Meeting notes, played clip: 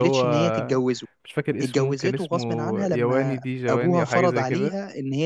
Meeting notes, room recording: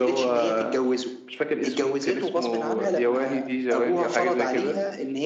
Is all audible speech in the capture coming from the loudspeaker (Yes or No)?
Yes